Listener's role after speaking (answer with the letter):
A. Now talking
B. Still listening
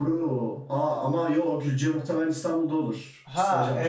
A